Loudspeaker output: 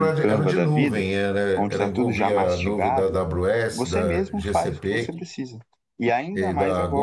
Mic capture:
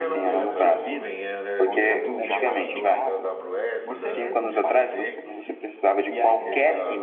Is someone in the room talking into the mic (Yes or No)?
Yes